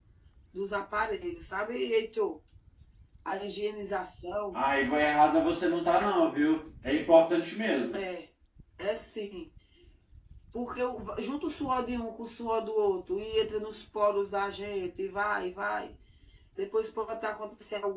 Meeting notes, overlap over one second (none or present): none